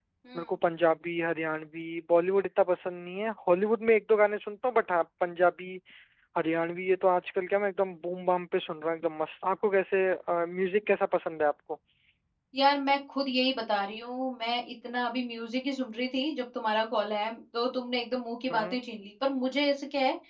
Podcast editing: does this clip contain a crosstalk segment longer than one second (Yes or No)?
No